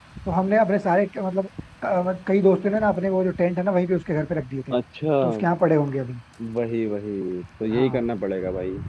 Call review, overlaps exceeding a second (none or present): none